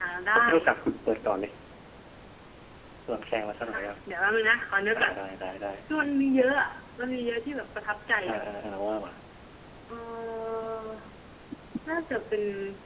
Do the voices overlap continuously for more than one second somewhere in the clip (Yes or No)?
No